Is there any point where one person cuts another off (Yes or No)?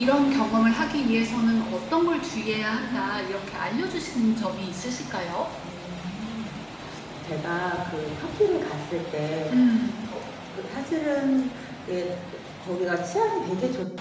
No